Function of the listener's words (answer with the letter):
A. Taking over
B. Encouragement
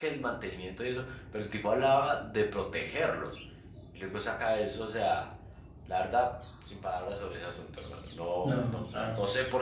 B